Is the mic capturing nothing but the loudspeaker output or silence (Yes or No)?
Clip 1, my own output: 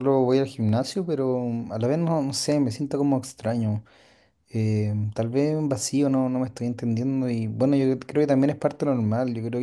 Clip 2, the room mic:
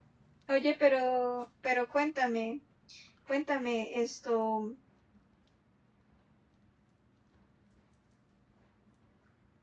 No